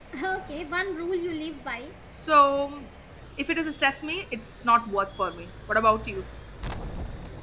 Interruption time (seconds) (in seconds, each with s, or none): none